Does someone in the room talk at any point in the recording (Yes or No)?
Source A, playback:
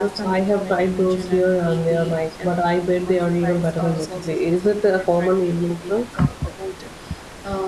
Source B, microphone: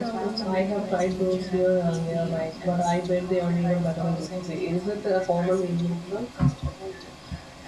Yes